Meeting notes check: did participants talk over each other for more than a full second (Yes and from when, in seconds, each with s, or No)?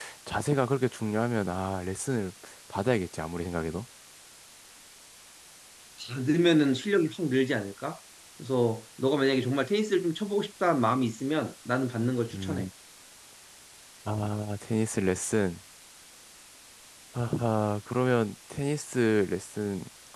No